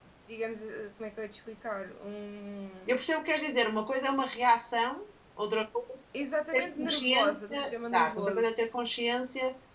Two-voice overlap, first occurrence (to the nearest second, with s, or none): 7 s